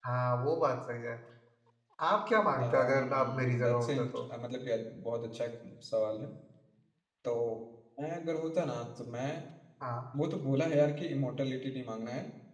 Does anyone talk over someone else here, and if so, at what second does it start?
2.6 s

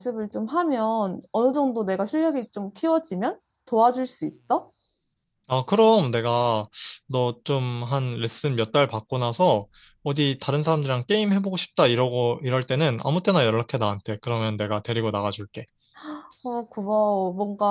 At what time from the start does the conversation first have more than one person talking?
none

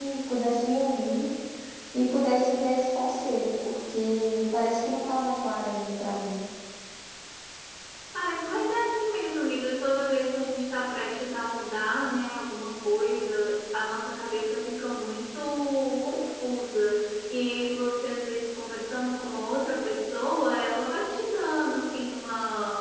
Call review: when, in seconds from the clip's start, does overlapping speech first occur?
none

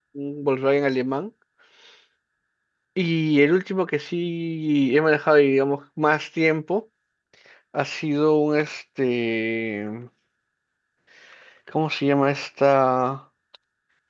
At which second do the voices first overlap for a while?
none

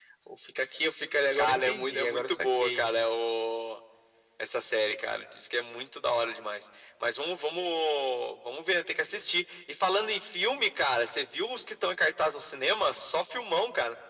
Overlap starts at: 1.4 s

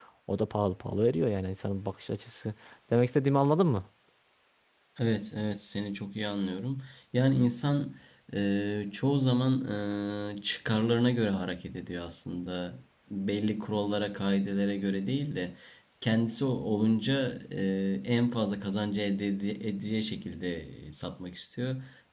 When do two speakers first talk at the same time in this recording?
none

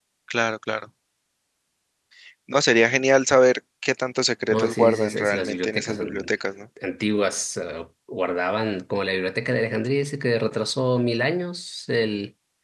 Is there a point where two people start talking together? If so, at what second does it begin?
4.5 s

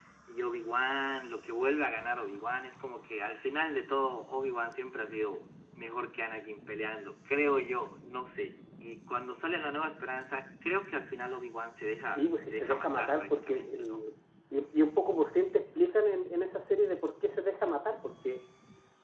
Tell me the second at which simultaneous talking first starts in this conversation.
12.1 s

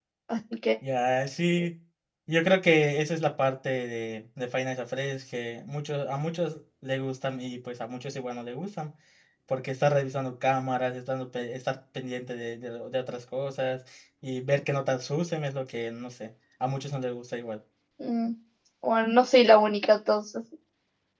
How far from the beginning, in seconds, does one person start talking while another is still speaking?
none

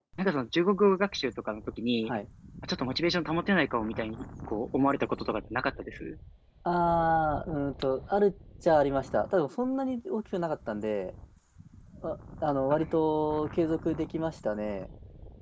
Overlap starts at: none

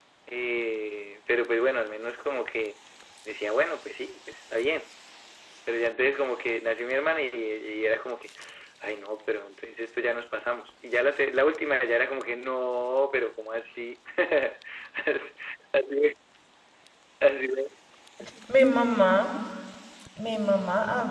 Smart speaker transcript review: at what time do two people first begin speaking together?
none

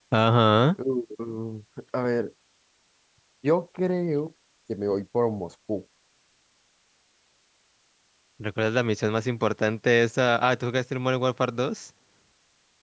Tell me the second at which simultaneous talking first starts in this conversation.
none

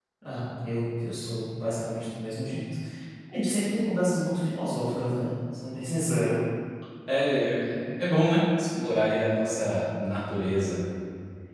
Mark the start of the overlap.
none

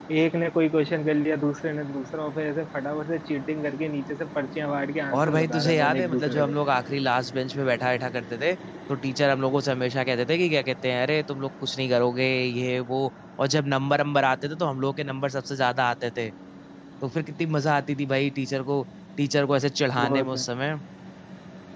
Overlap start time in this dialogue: 5.2 s

